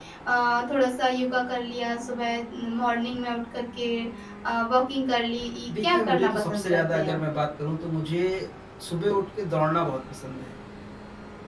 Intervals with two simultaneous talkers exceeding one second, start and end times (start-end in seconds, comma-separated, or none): 5.8-7.2